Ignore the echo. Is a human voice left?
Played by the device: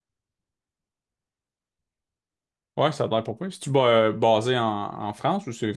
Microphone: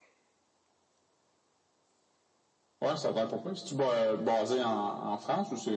No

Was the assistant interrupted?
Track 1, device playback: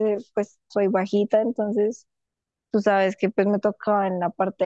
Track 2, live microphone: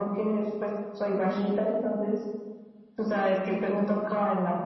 No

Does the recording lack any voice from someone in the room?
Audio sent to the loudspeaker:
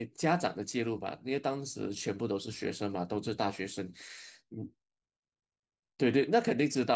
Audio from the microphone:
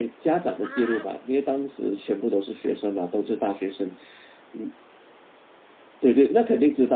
No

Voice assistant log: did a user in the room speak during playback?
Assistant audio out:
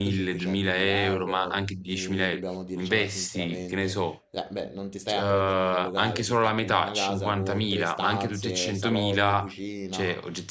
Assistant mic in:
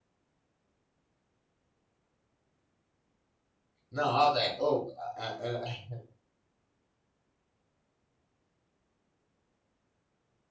Yes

